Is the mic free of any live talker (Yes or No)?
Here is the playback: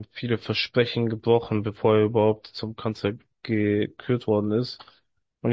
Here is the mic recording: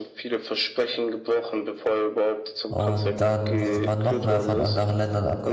No